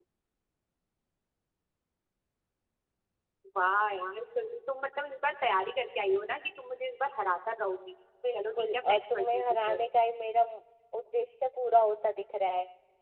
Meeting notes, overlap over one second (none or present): present